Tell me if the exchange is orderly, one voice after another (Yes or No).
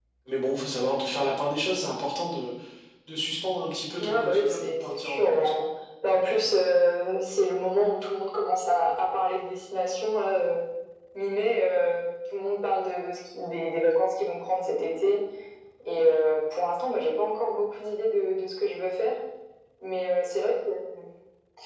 No